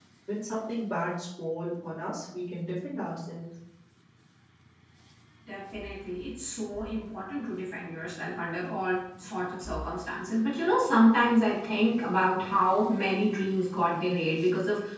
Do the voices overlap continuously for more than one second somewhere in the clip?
No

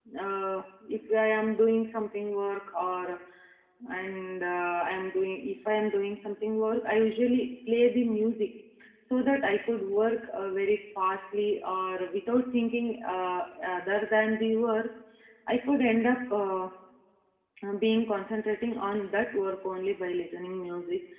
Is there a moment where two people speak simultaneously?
No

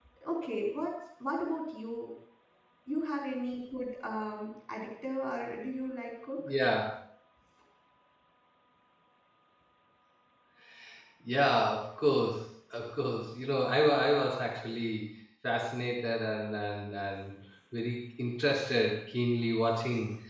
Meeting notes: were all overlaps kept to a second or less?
Yes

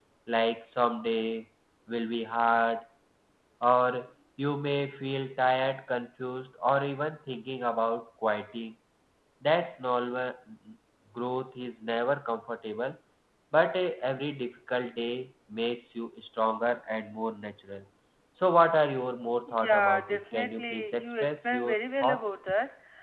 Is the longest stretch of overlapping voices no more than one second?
No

